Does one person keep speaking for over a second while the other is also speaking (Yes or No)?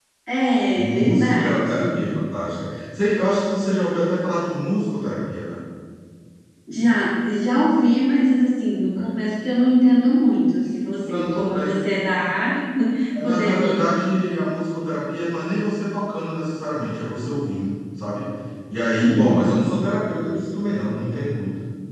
Yes